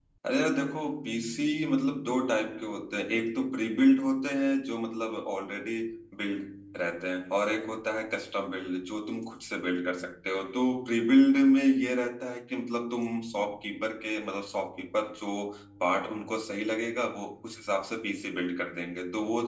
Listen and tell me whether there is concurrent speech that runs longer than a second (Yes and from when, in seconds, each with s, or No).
No